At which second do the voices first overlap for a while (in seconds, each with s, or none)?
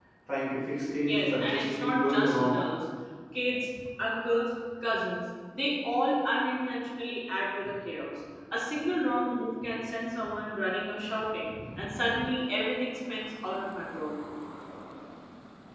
1.0 s